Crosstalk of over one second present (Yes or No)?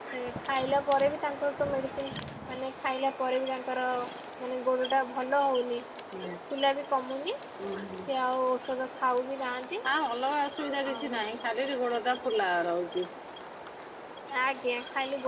No